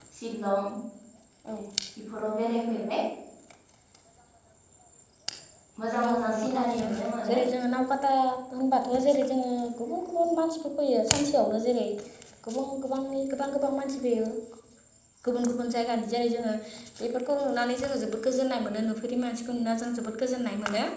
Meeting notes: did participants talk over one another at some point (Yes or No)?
Yes